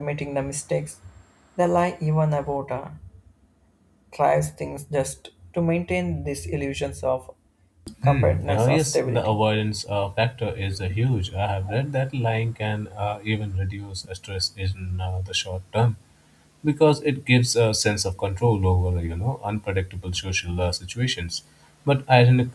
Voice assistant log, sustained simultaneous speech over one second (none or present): present